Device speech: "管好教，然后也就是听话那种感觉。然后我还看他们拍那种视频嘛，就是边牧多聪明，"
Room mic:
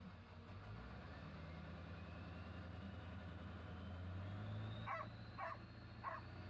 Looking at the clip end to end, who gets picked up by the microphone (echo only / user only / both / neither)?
neither